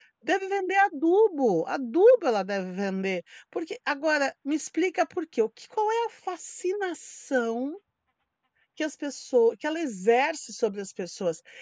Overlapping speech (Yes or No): No